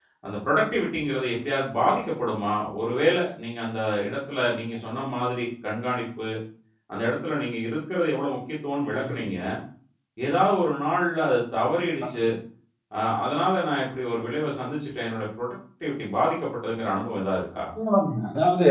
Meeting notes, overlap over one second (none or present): none